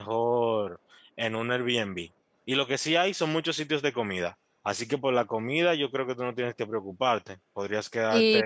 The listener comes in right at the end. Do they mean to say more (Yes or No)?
Yes